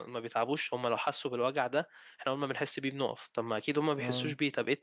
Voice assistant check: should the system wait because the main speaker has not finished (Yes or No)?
Yes